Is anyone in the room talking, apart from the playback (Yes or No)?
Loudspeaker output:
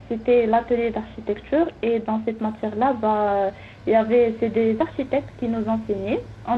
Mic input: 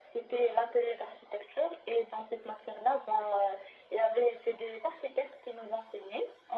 No